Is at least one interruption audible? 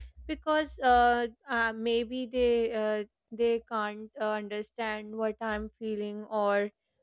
No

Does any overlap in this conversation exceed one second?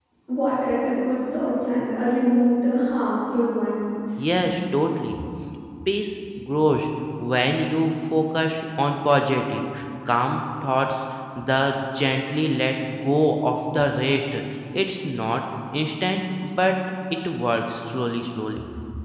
No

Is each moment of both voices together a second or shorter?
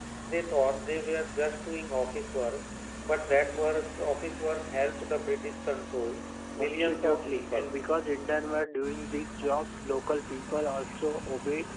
No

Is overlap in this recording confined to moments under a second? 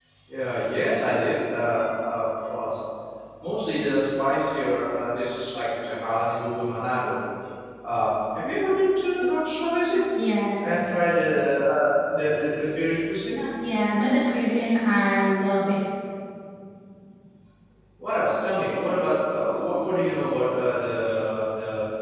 Yes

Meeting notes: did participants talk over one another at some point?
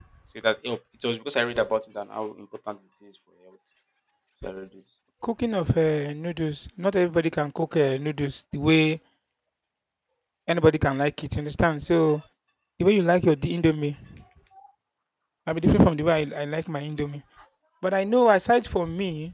No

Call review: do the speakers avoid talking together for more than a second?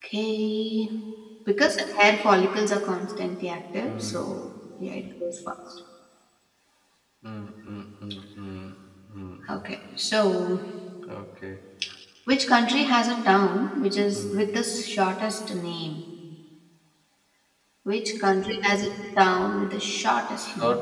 Yes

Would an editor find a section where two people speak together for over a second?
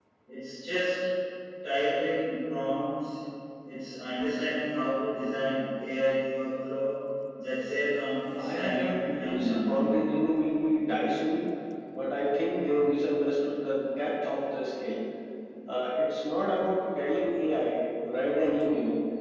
Yes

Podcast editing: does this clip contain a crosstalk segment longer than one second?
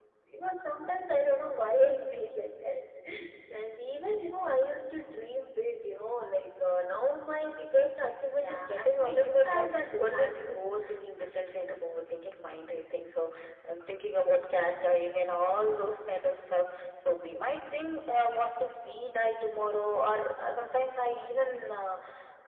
Yes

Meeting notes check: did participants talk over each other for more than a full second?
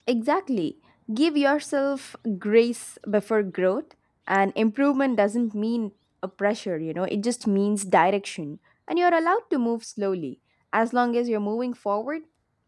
No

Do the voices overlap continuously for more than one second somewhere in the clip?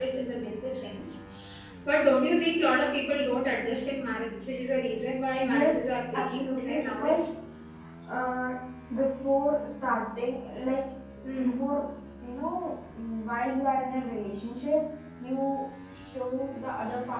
Yes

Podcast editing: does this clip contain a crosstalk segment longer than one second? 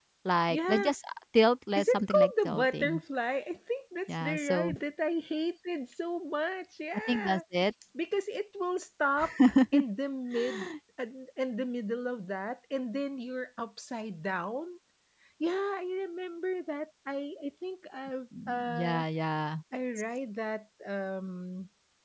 Yes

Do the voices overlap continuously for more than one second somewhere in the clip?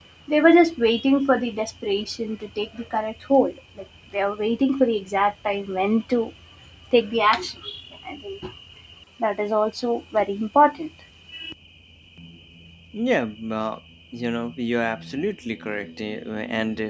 No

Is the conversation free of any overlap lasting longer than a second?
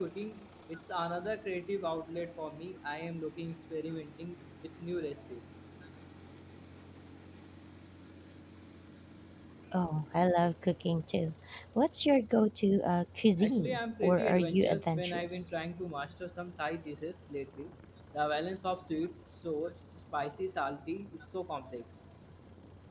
No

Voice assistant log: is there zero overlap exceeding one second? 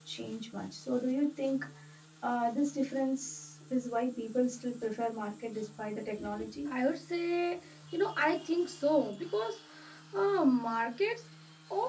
Yes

